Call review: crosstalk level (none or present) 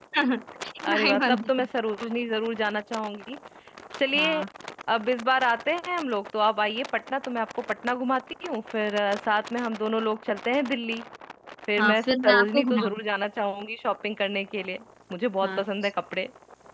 present